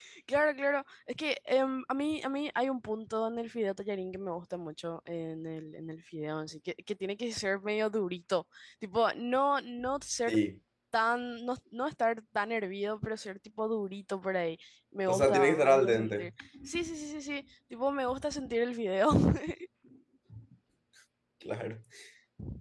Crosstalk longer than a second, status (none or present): present